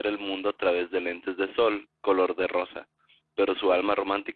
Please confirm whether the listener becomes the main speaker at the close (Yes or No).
No